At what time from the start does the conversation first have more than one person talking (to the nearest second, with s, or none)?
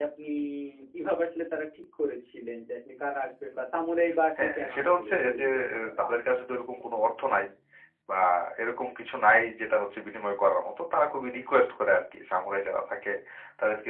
4 s